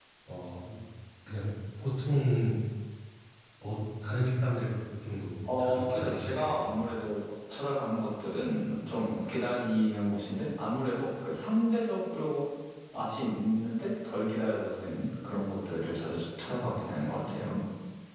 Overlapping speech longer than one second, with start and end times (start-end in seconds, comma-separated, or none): 5.6-6.8